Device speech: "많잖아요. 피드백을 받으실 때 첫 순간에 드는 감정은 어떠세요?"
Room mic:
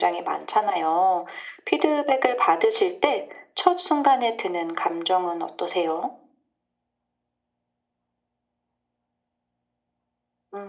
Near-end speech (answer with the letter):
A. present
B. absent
B